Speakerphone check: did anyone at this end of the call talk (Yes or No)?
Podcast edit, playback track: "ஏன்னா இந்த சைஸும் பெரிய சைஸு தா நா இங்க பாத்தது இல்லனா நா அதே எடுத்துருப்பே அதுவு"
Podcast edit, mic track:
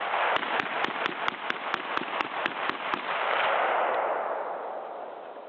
No